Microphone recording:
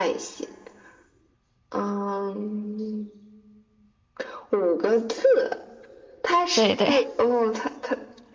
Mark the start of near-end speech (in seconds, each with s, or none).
6.5 s